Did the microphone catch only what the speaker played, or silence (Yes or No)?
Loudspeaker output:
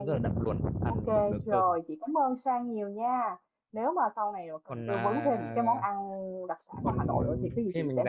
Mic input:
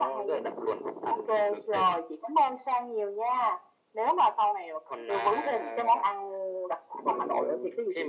Yes